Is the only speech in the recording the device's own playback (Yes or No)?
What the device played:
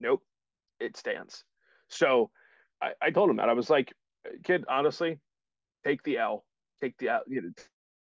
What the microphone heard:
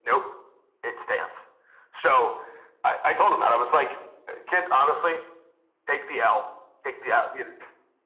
Yes